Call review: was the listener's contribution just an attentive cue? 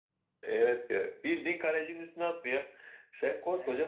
Yes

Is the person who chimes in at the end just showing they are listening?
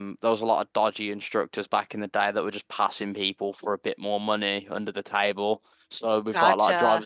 Yes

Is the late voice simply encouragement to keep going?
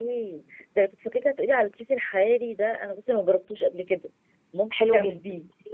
No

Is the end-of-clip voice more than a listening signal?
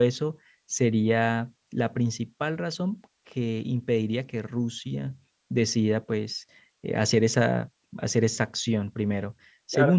Yes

